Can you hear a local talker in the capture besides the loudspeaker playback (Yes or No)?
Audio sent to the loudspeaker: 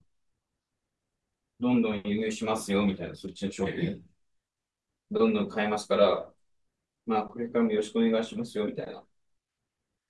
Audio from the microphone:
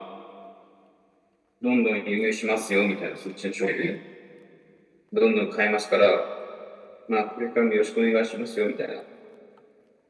No